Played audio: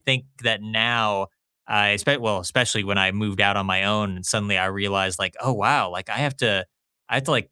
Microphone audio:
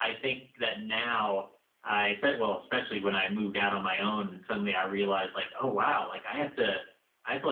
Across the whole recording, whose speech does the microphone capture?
echo only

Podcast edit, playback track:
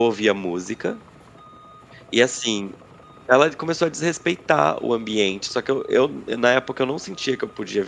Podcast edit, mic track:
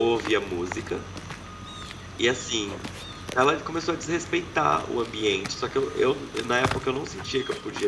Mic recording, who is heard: echo only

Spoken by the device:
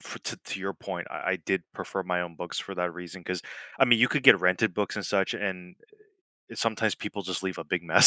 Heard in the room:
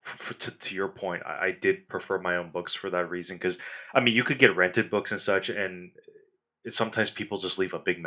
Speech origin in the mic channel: echo only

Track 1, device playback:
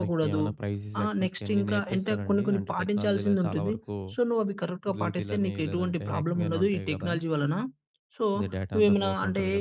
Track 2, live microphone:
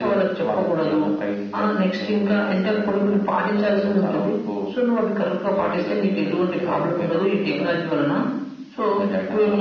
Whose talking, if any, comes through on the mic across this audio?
echo only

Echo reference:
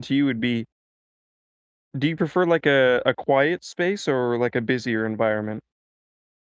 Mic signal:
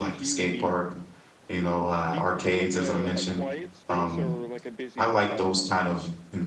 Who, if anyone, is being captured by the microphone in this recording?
both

